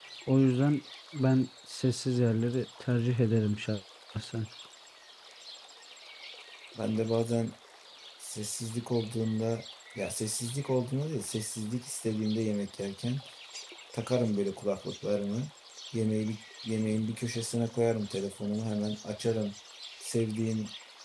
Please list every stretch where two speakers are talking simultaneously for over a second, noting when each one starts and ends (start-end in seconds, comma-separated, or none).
none